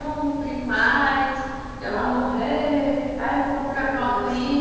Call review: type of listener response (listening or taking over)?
taking over